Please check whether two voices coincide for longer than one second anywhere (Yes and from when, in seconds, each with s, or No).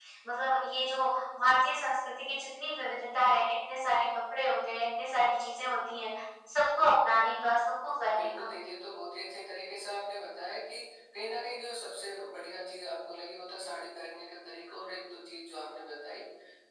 No